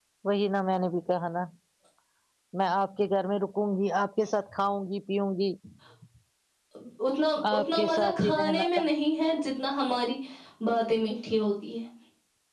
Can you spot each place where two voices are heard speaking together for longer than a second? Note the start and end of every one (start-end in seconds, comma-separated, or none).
7.5-8.8